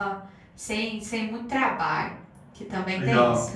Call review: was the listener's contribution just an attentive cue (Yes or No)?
No